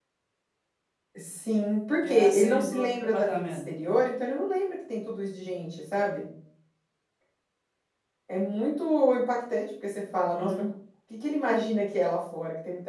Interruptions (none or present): present